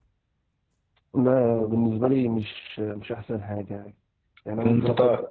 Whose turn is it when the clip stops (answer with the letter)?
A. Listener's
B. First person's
B